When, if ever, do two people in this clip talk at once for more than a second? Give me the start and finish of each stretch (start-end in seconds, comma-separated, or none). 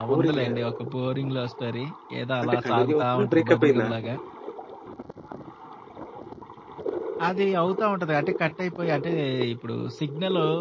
2.4-3.9